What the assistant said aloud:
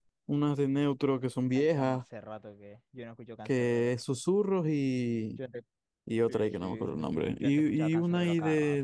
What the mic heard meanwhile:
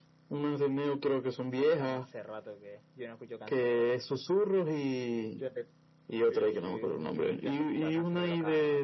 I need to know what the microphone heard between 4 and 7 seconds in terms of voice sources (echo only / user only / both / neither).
echo only